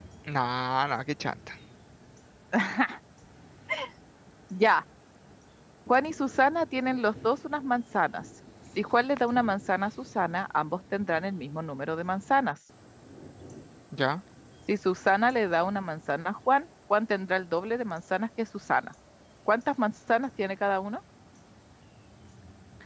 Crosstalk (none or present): none